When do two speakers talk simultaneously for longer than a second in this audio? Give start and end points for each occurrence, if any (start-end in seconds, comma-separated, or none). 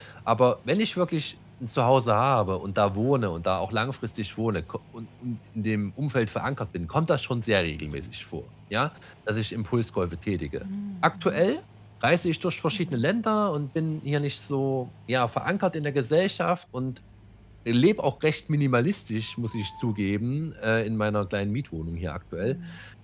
none